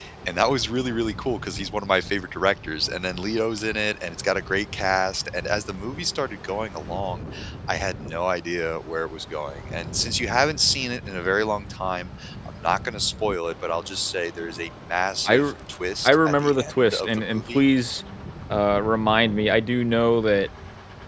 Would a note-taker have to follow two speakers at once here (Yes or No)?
Yes